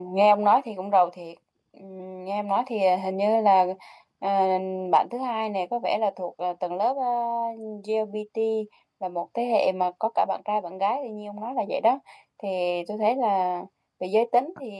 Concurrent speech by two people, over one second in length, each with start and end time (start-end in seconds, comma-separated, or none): none